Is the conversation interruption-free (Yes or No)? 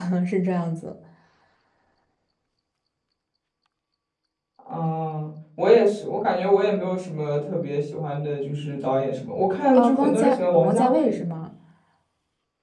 No